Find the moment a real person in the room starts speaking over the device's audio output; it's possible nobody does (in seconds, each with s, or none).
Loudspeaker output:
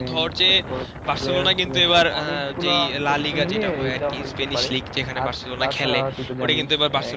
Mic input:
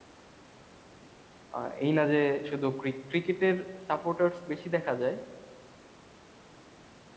1.6 s